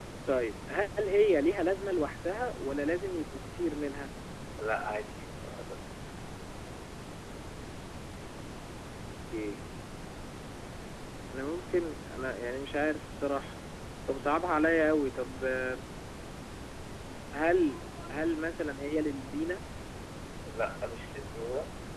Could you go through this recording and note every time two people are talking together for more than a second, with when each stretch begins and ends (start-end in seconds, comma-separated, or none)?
none